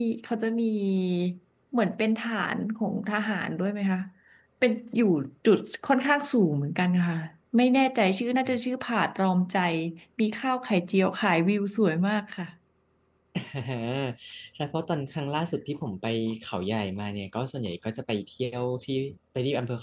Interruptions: none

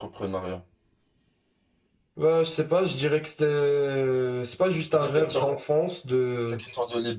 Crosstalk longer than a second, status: none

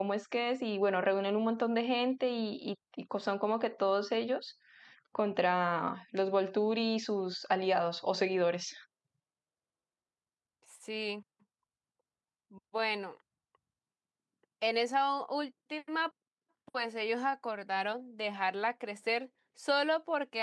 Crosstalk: none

